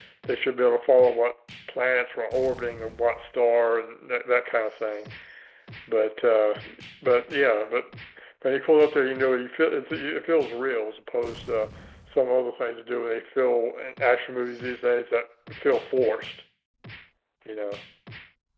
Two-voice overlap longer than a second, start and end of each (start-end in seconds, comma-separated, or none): none